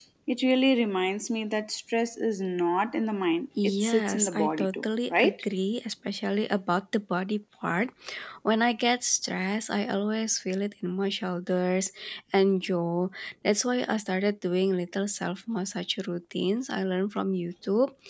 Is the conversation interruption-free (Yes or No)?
No